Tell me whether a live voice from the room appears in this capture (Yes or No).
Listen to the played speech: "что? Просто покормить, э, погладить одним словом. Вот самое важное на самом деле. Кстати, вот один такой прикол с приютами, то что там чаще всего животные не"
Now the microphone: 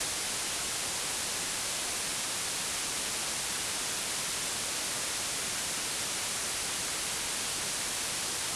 No